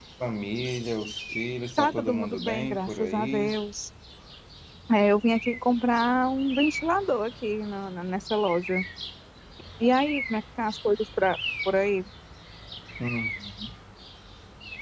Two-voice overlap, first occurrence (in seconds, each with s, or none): 1.8 s